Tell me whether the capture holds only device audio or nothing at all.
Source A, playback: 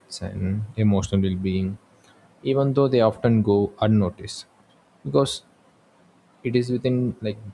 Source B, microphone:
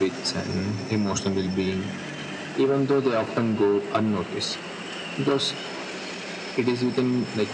Yes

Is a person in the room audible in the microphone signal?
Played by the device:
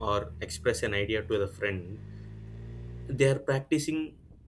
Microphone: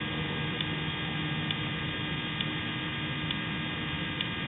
No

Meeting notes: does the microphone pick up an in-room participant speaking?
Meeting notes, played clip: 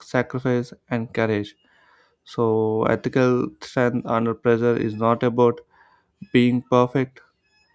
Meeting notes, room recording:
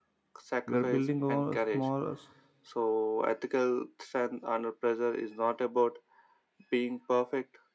Yes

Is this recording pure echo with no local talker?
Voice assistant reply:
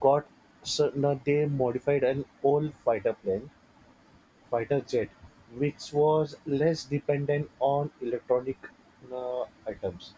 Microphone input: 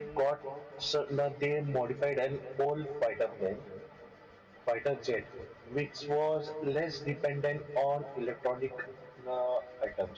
Yes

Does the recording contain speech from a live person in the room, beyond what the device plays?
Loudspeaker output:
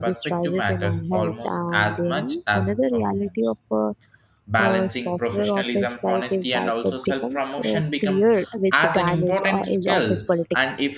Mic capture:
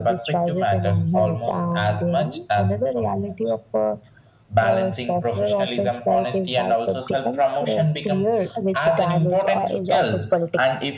No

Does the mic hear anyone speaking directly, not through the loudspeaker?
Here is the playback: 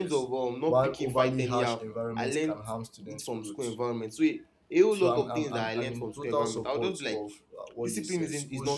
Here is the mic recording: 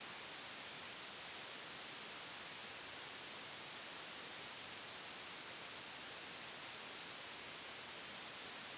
No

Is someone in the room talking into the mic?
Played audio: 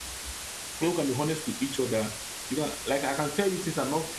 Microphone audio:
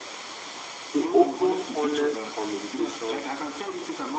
Yes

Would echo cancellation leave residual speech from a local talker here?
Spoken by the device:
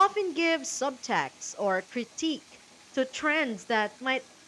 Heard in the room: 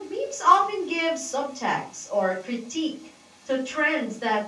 No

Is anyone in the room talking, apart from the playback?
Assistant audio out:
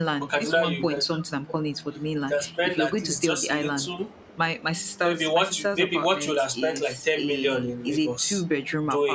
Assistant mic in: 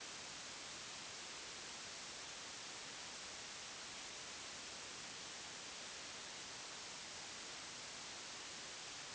No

